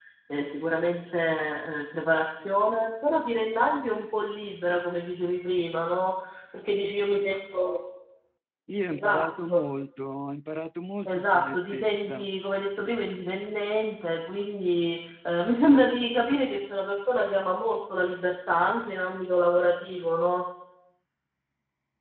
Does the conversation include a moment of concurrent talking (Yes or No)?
Yes